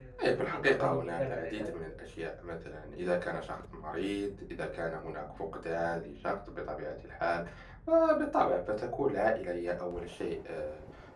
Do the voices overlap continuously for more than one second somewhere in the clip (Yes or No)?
Yes